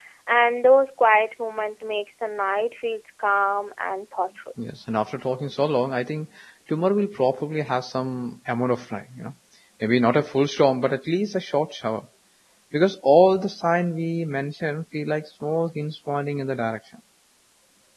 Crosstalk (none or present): none